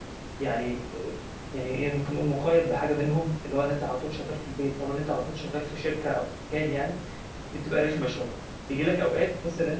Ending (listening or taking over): listening